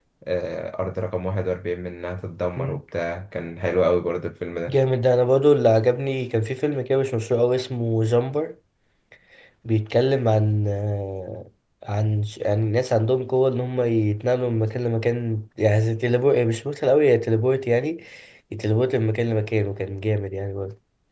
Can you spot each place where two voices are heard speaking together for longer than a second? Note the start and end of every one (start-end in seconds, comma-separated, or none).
none